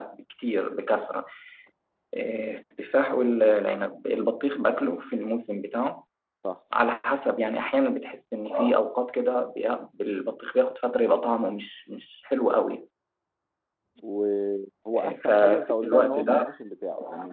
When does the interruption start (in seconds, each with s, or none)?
14.9 s